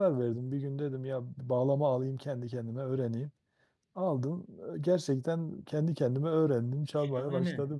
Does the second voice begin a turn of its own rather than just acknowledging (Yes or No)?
Yes